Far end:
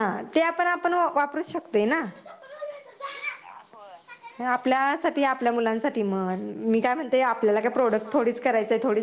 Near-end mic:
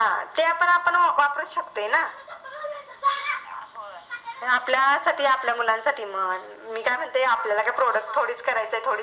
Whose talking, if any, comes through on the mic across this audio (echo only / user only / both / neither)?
echo only